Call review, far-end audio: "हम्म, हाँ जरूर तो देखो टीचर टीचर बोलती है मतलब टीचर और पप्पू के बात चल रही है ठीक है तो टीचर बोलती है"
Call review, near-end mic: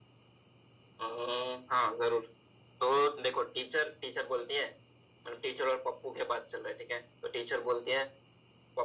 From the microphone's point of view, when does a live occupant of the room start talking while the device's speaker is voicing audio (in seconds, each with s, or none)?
none